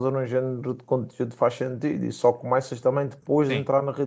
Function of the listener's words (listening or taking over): listening